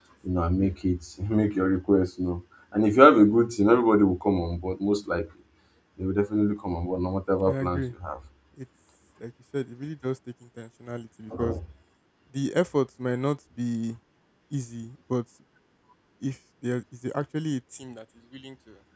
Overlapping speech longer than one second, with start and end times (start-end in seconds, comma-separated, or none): none